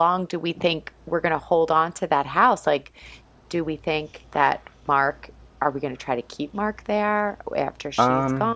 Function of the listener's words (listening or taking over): taking over